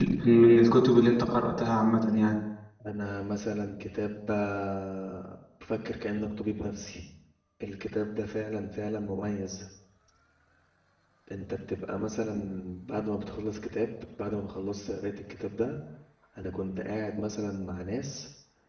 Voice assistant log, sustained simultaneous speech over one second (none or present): none